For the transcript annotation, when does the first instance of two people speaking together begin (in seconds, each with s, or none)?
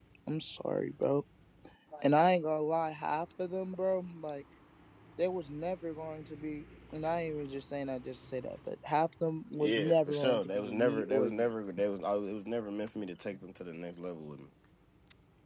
9.5 s